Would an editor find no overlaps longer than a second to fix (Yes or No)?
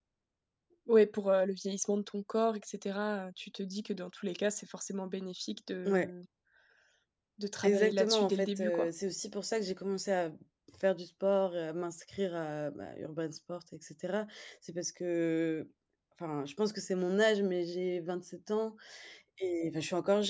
No